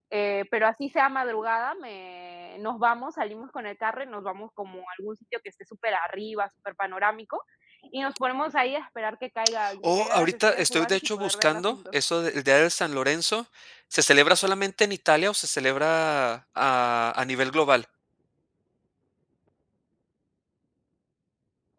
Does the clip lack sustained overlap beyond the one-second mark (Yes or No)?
No